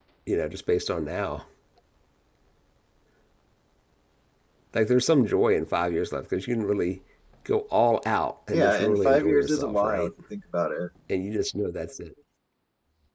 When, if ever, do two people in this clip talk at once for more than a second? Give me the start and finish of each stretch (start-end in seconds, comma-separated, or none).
8.5-10.1